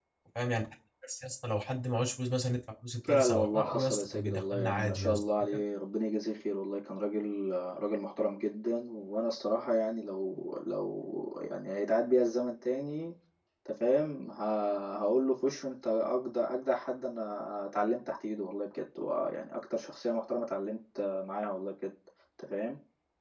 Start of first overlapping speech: 3 s

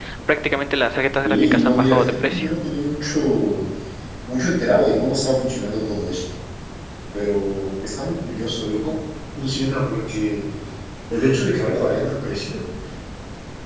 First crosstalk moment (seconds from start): 1 s

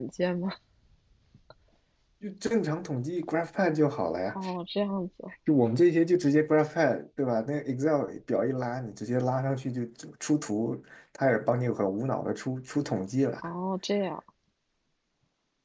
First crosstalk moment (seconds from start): none

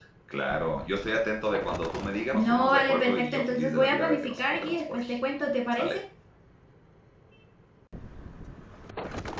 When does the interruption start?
2 s

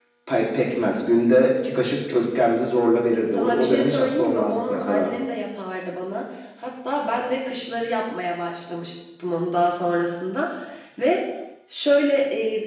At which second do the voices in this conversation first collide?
3 s

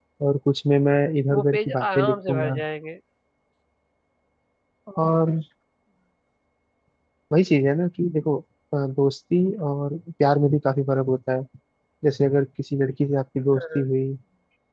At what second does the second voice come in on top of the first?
1 s

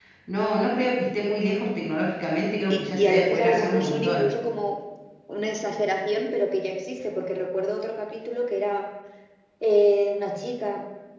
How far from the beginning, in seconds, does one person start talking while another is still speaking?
3 s

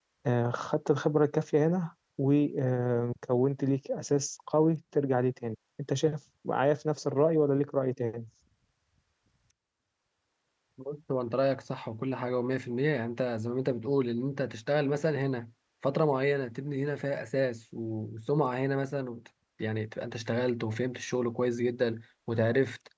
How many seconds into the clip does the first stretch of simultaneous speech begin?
none

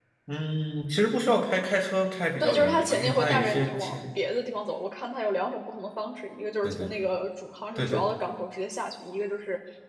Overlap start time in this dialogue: 2 s

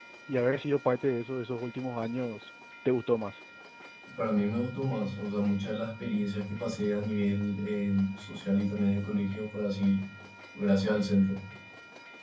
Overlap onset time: none

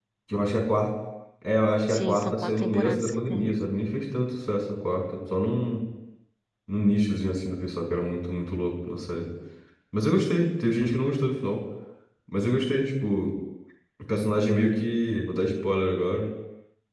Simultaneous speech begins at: 2 s

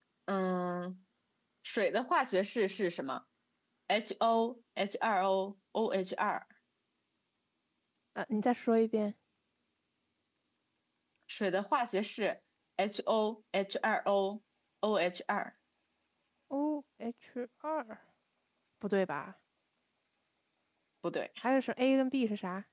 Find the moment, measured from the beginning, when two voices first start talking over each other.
none

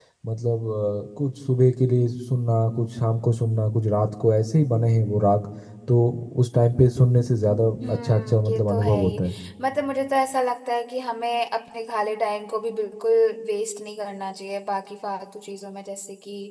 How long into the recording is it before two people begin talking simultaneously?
8 s

